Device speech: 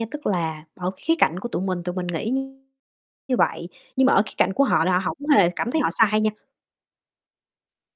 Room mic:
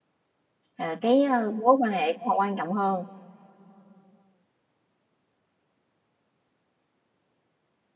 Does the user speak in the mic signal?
Yes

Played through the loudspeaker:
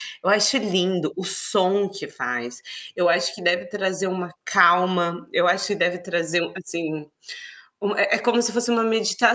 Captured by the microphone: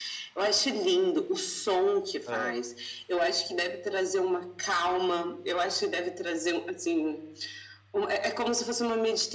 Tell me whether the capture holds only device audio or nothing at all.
No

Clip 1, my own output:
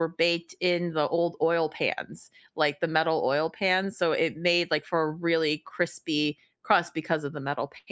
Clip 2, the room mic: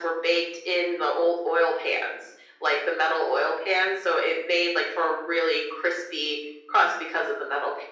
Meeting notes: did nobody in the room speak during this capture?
Yes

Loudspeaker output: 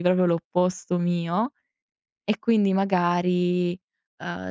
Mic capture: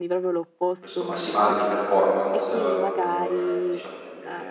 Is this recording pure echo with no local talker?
No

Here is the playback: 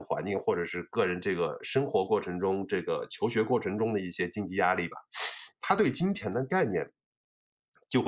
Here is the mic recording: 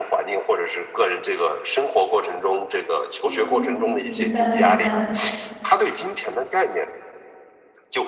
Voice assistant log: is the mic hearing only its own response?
No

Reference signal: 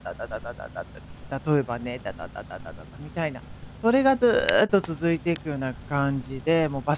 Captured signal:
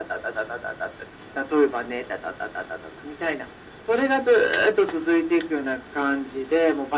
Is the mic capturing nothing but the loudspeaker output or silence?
Yes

